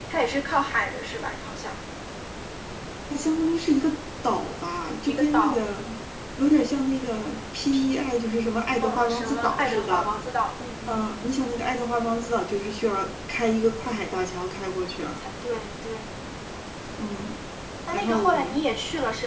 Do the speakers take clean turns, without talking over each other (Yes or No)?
No